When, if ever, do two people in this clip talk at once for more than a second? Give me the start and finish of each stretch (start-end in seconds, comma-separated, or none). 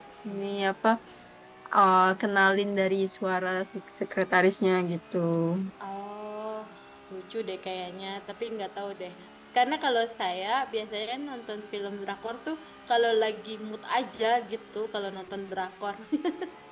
none